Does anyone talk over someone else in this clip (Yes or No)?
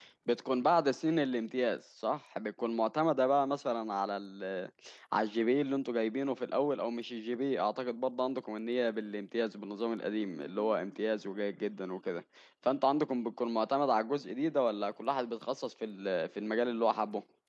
No